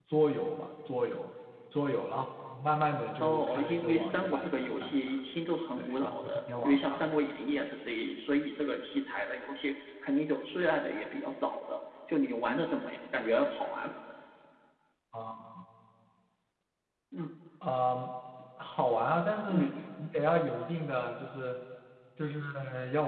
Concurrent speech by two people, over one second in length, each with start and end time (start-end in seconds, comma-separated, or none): 3.2-5.1, 5.8-7.0